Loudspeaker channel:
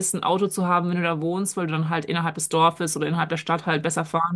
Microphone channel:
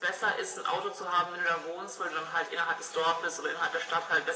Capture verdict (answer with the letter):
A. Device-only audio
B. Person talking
A